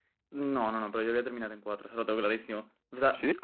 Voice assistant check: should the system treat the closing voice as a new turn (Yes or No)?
No